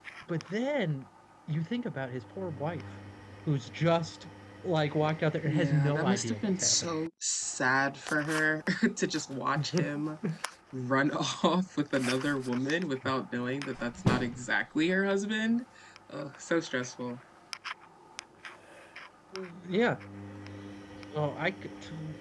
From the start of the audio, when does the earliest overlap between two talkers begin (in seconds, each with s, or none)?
5.4 s